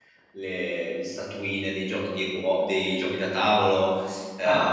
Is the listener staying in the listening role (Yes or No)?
No